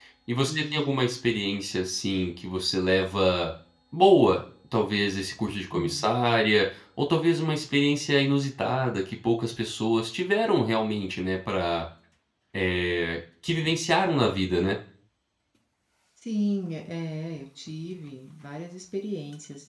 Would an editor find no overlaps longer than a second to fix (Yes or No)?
Yes